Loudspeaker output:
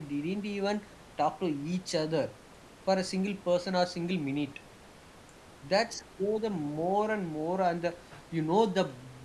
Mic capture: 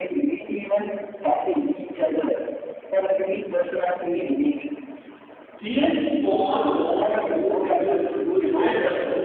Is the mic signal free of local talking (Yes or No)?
No